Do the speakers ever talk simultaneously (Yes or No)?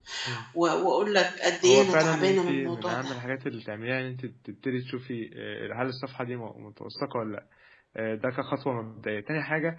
Yes